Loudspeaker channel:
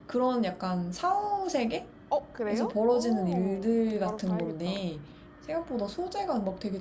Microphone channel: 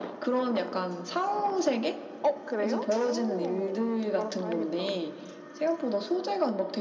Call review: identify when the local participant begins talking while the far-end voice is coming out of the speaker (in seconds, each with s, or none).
none